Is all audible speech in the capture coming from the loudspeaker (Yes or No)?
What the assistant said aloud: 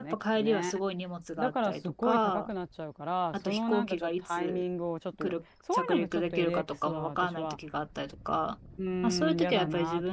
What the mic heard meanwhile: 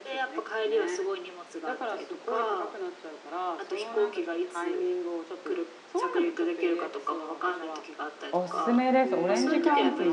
No